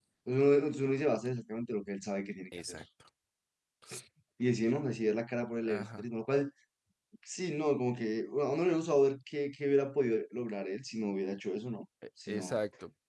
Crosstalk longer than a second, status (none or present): none